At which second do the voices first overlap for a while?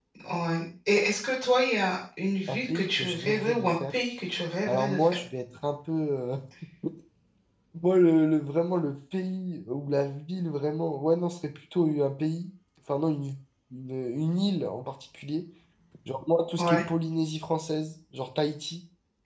2.5 s

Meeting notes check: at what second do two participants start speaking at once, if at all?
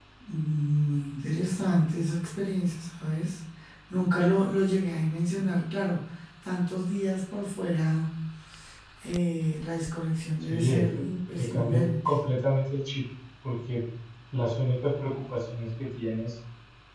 10.5 s

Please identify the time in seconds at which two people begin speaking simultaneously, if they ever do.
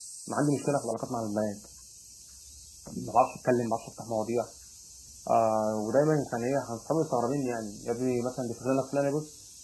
none

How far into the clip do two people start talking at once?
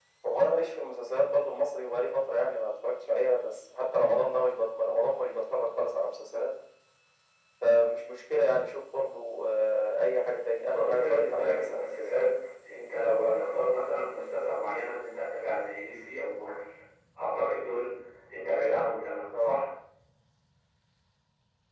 10.7 s

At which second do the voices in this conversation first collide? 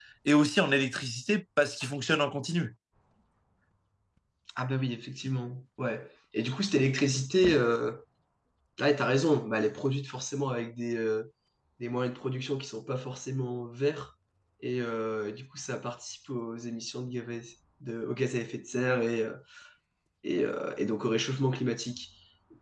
none

